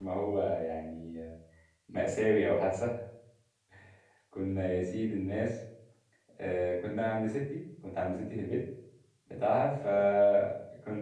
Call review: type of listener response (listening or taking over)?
listening